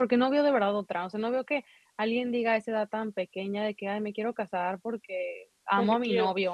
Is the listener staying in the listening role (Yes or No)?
Yes